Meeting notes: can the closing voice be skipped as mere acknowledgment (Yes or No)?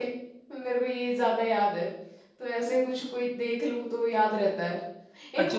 No